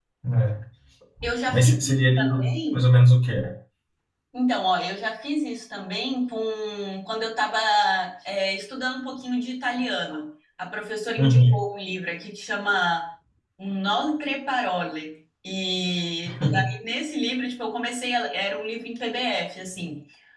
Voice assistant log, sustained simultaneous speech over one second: present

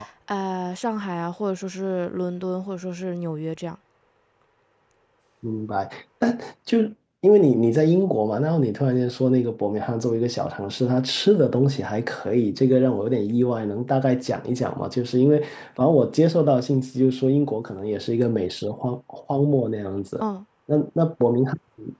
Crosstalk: none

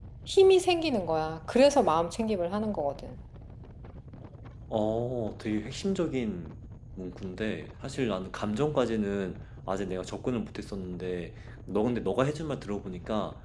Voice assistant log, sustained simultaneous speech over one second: none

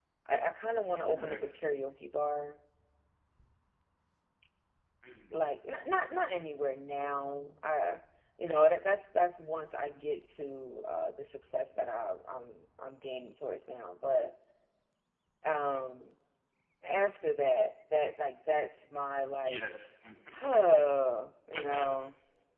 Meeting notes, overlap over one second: none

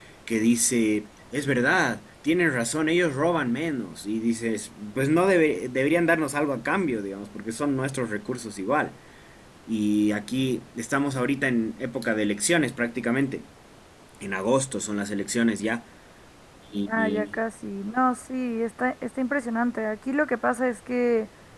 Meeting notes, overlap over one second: none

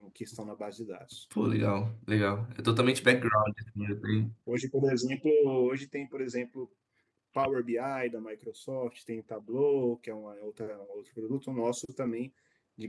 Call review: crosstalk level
none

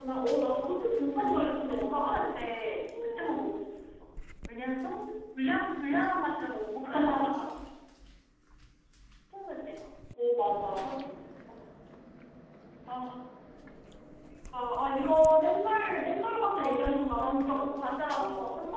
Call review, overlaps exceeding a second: present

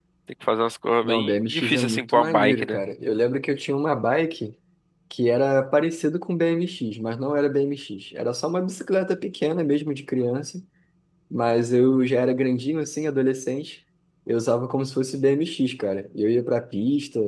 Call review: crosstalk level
present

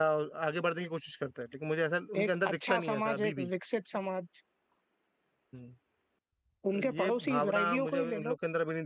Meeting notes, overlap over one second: present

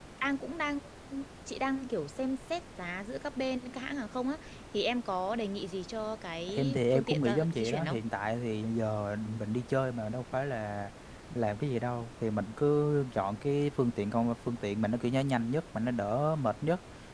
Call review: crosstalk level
present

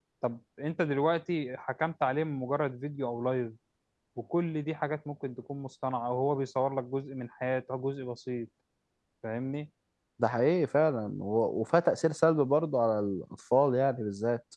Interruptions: none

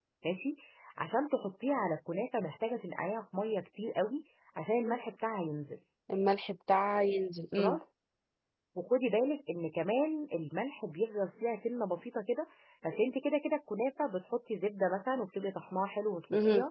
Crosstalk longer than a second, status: none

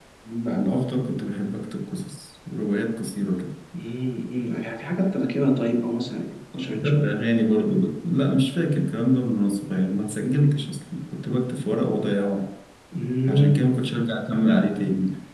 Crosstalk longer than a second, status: none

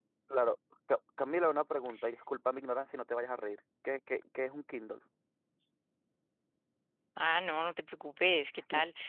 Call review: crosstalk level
none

